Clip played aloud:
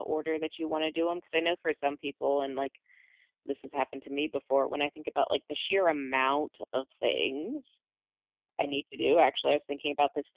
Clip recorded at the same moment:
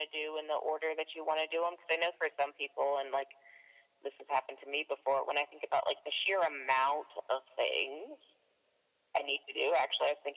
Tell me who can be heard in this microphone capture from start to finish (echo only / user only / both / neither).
echo only